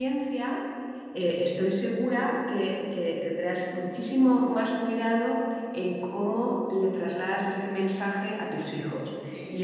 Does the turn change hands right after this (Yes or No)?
No